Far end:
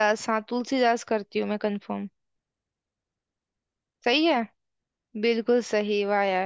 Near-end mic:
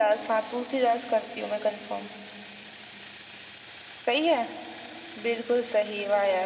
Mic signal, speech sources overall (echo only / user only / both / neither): echo only